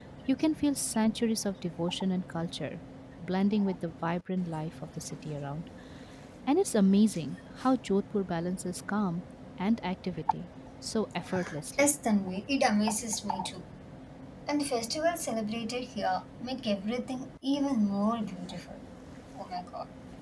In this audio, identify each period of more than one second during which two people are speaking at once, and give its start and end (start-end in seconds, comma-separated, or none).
none